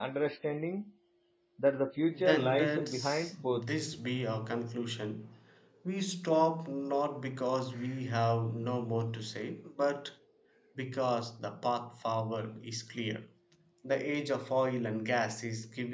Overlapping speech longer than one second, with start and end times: 2.1-3.6

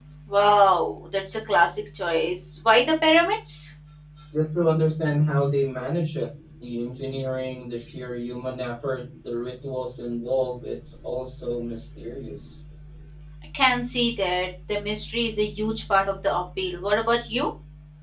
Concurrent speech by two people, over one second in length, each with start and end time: none

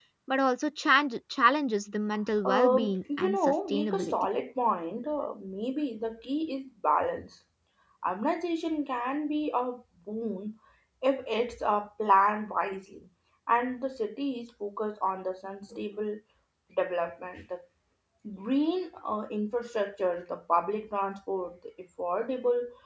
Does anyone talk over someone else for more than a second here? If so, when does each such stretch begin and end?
2.4-4.1

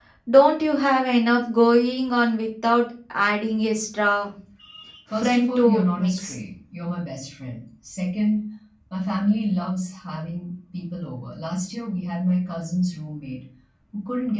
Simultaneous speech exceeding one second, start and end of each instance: 5.1-6.4

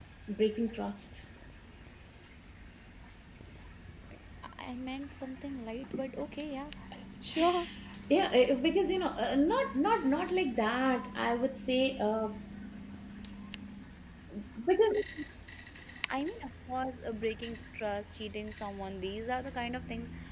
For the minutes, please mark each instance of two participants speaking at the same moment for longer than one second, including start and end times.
none

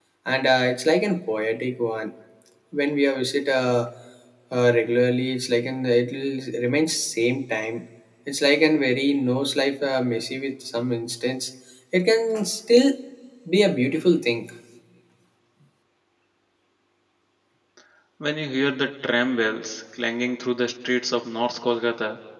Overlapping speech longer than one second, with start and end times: none

